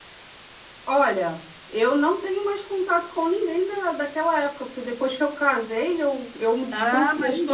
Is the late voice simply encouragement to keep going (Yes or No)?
No